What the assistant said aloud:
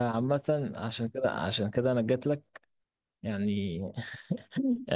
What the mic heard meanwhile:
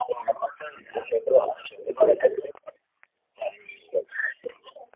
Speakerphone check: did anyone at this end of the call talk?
Yes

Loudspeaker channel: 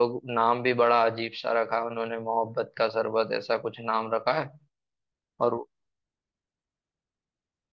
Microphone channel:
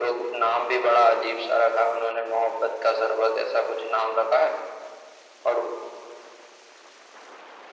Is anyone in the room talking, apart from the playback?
No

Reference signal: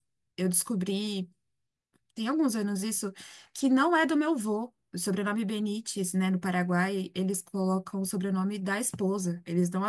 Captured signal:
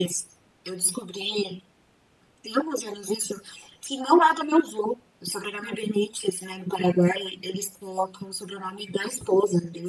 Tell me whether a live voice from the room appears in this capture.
No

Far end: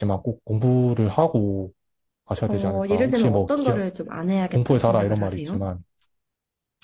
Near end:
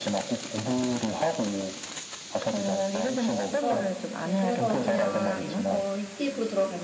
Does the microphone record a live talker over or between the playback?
Yes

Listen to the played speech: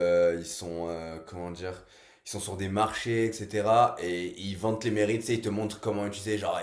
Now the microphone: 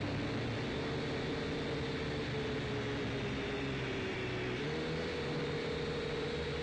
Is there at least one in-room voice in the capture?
No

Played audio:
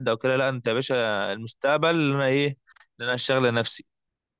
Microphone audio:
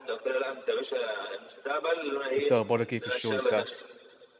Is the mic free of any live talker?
No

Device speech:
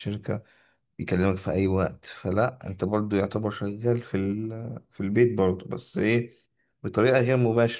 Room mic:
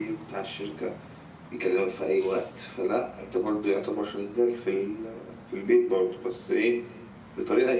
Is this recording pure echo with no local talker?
Yes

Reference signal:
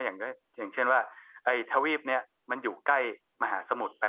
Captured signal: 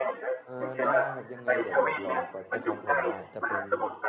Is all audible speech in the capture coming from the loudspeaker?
No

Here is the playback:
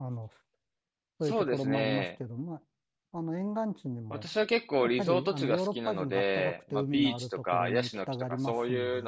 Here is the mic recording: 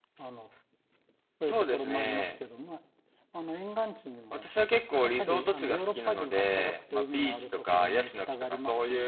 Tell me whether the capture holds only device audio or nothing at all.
Yes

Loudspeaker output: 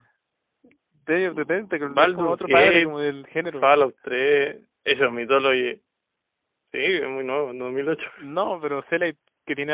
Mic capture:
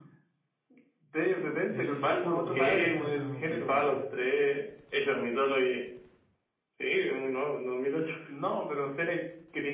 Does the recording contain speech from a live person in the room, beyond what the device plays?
Yes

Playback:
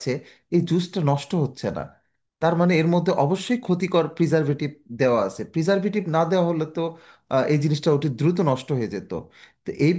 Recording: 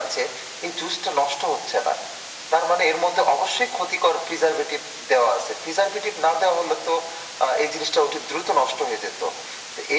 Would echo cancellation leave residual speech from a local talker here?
No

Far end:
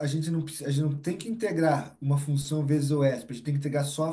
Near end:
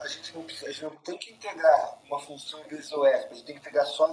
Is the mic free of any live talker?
Yes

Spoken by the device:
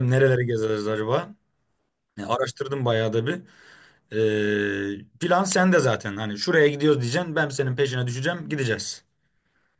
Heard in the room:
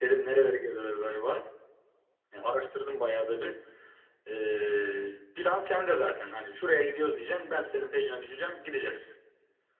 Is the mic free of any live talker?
Yes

